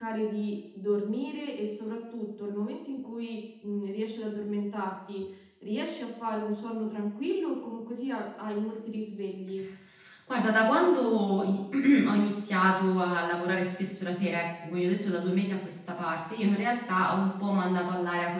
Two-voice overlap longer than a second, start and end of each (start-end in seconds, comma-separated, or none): none